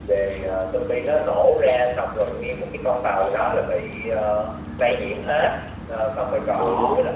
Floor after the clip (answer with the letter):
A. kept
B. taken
A